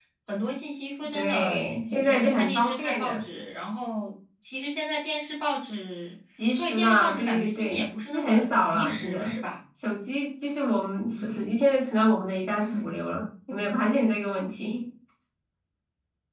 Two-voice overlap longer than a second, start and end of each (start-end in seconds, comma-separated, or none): 1.1-3.2, 6.6-9.4